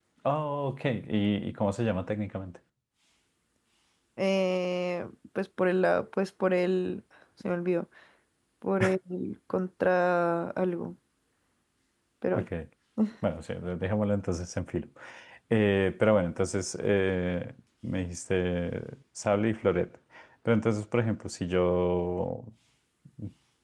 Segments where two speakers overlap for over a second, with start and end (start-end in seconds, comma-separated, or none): none